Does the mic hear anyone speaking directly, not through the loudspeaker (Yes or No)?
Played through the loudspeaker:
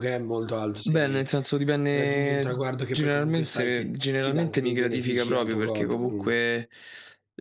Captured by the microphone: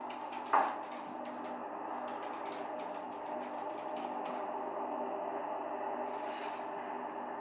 No